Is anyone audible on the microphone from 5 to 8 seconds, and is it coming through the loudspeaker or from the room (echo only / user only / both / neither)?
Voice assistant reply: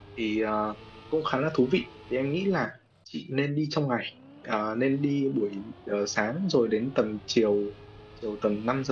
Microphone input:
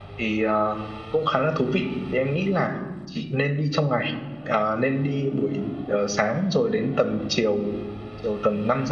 echo only